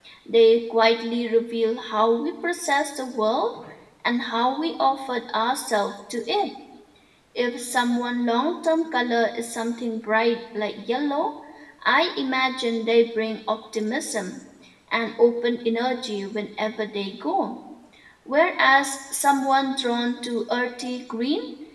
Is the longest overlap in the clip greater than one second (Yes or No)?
No